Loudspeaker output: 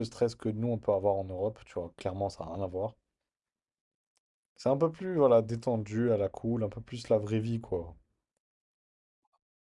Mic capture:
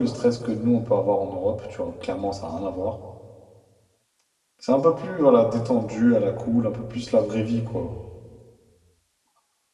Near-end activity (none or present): none